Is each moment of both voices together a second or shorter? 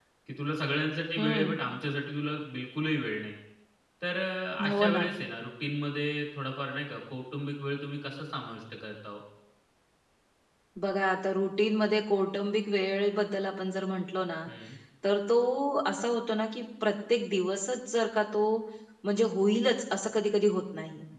Yes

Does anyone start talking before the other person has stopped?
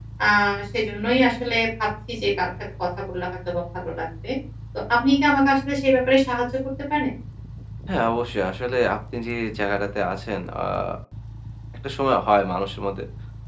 No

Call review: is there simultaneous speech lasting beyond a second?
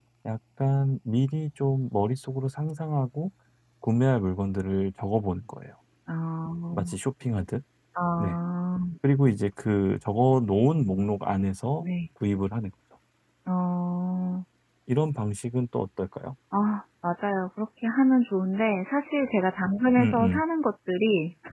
No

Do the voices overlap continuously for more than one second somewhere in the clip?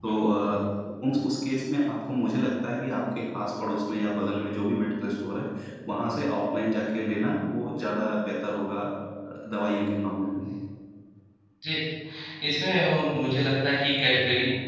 No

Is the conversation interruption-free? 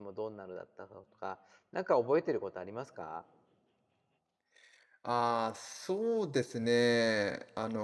Yes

